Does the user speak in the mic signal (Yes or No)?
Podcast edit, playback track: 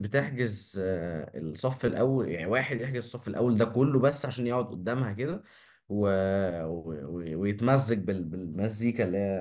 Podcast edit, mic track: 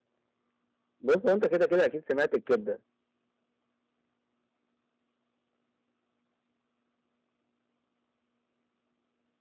Yes